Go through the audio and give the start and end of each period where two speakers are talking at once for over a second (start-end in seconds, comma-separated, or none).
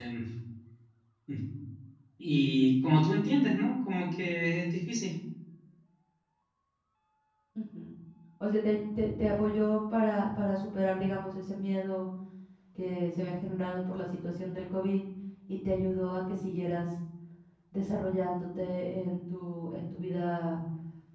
none